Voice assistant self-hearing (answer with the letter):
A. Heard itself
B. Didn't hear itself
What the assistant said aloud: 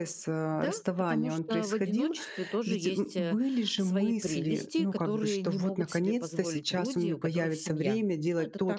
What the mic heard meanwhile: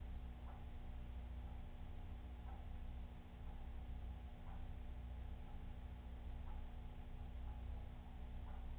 B